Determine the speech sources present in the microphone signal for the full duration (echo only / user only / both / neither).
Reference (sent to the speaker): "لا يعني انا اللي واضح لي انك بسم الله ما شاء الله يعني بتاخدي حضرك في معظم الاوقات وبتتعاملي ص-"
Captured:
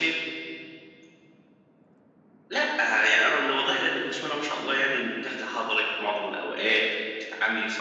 echo only